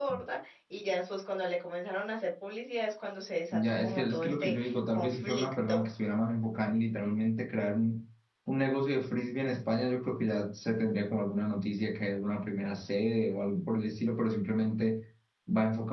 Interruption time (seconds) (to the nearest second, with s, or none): 4 s